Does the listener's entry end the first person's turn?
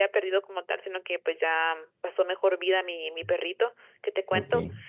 No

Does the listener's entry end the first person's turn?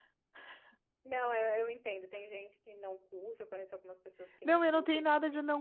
Yes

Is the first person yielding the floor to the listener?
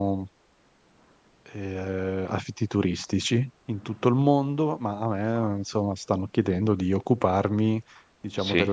No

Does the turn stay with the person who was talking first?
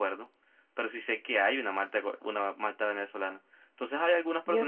Yes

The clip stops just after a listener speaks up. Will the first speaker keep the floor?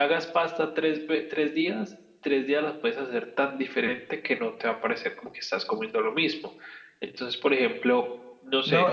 No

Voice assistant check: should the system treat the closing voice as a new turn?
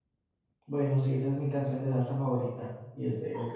Yes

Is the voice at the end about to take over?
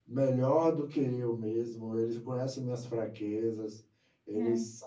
No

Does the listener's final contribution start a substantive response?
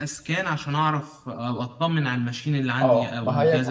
Yes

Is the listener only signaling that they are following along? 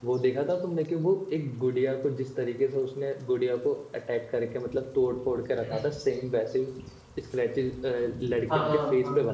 No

